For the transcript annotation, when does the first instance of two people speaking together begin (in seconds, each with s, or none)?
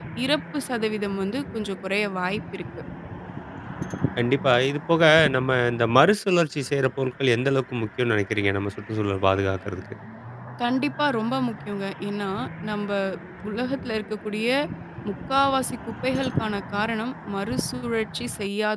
none